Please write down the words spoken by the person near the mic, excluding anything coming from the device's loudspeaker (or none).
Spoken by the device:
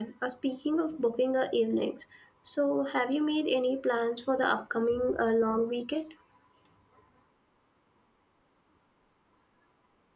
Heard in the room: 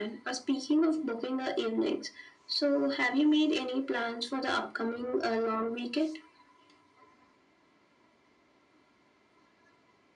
none